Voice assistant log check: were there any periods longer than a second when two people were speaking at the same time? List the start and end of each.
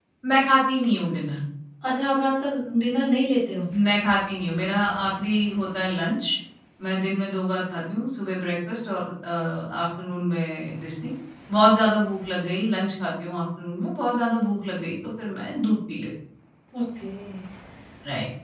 none

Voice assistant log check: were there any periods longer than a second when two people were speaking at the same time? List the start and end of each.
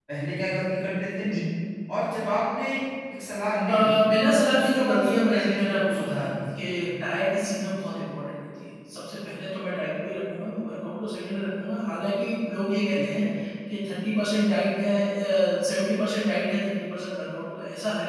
4.6-6.3

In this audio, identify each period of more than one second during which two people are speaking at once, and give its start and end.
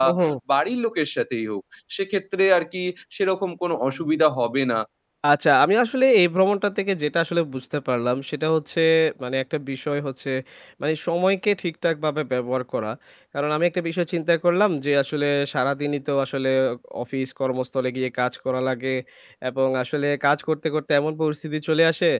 none

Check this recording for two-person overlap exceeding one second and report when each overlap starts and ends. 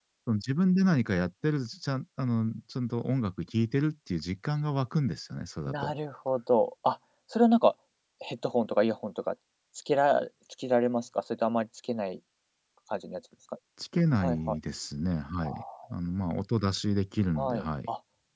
none

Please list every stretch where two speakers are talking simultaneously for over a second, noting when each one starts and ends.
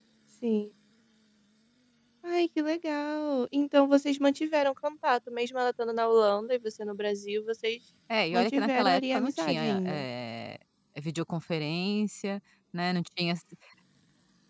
8.3-10.0

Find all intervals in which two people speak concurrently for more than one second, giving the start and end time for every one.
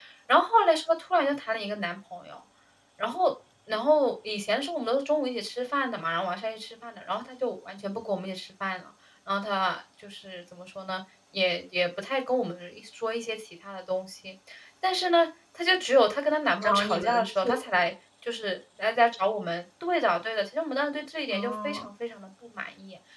16.6-17.9

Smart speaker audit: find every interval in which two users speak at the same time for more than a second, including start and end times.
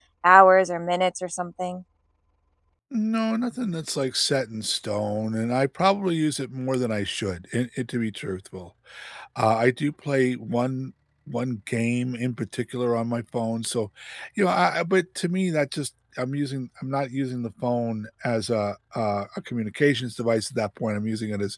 none

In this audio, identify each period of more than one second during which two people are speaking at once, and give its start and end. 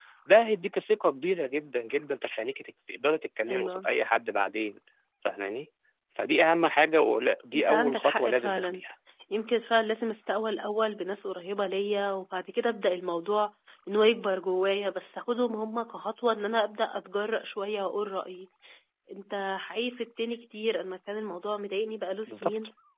7.5-8.8

